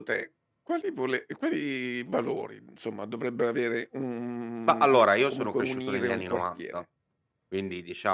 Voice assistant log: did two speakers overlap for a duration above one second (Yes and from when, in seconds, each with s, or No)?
Yes, from 4.7 s